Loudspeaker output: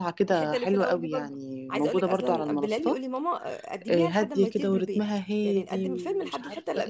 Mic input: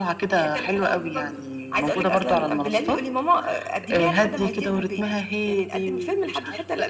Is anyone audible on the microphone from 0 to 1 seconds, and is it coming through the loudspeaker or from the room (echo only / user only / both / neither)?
echo only